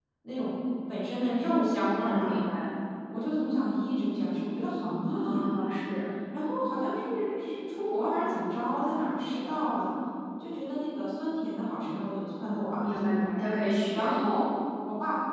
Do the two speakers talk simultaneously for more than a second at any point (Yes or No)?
No